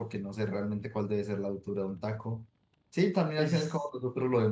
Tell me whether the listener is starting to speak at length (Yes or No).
No